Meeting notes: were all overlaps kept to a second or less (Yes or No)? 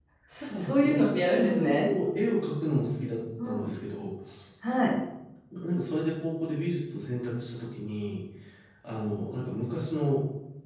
No